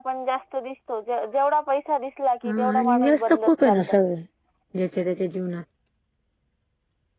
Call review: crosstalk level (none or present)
present